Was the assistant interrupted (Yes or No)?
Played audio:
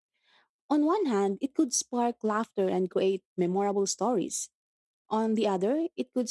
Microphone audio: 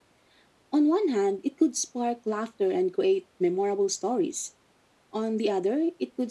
No